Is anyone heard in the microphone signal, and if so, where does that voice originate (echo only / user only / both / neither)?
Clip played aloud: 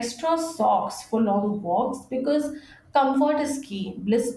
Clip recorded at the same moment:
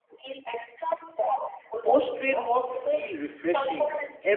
both